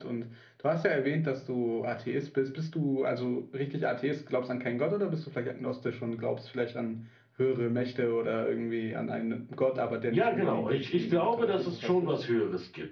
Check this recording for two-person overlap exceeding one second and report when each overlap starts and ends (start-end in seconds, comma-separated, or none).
10.1-12.1